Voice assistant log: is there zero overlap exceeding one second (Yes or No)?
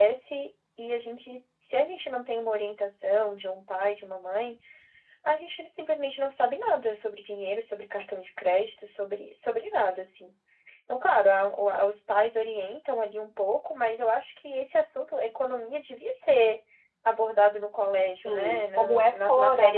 No